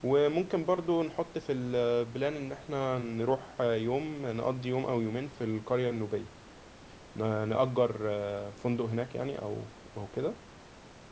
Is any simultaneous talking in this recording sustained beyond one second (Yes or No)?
No